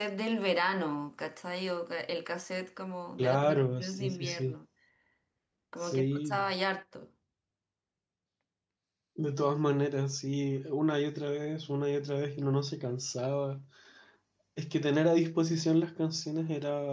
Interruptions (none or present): present